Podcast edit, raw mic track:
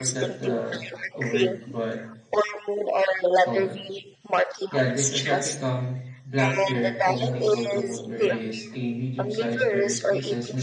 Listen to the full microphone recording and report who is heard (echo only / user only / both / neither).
both